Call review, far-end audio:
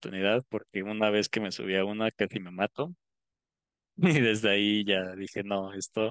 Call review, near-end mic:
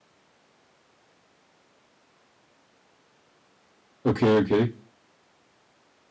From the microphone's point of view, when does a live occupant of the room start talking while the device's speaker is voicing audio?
4.0 s

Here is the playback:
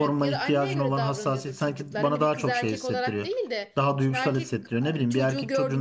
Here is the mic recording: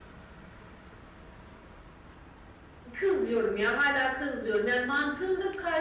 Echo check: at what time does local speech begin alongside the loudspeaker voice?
2.9 s

